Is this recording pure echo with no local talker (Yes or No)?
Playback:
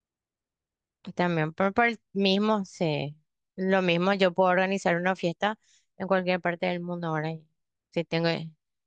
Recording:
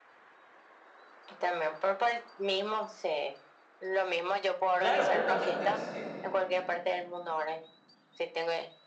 No